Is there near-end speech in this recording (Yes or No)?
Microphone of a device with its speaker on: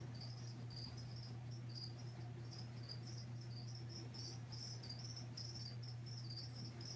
No